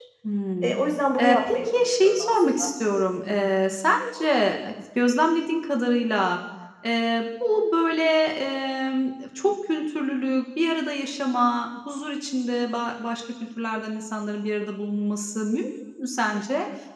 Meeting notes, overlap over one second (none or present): present